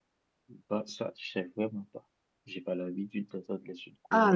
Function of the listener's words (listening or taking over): taking over